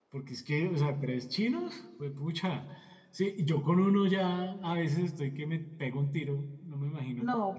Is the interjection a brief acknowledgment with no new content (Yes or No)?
No